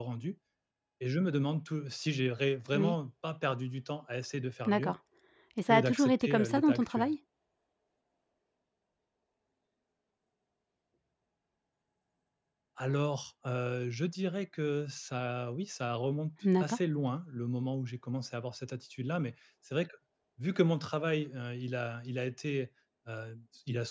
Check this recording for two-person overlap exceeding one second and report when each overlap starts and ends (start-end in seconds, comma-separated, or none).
5.7-7.1